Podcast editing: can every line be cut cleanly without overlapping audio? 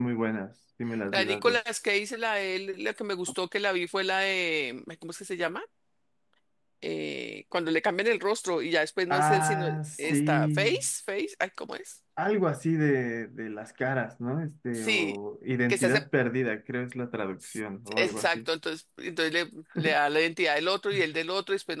No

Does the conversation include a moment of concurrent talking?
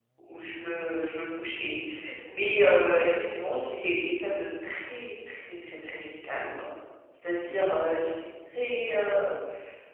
No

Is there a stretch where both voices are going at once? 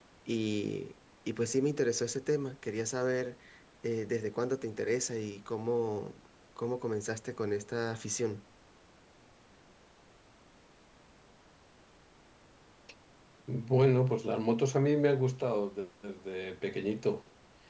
No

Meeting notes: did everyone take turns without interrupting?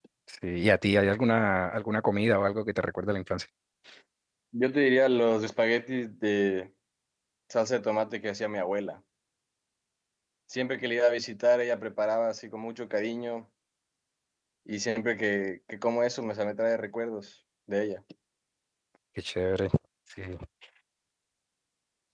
Yes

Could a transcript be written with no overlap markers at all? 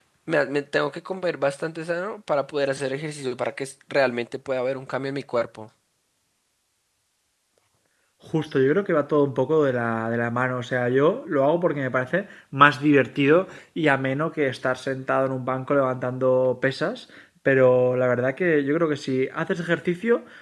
Yes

